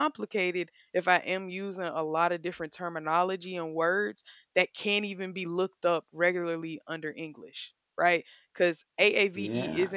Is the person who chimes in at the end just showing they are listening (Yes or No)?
Yes